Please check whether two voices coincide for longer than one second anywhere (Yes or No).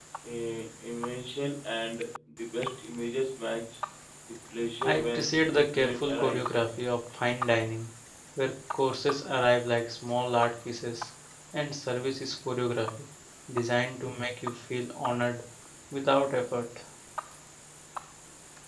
Yes